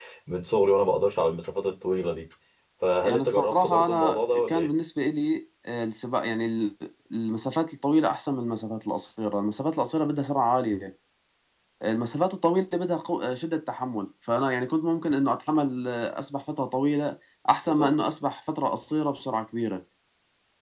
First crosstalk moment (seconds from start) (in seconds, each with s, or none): 3.0 s